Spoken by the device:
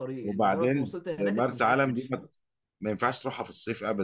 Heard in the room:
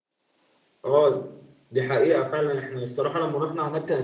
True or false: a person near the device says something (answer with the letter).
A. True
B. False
A